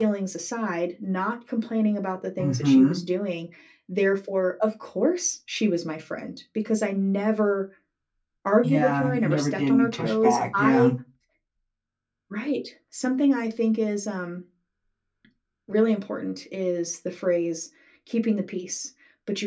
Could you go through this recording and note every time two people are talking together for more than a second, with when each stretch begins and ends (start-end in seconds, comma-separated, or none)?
8.6-10.9